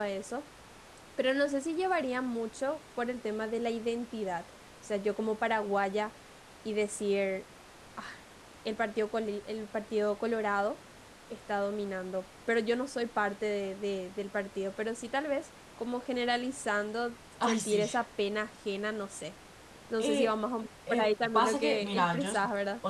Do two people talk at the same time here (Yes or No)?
Yes